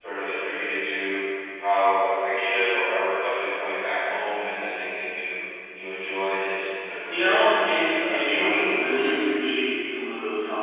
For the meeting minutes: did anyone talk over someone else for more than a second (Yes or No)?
Yes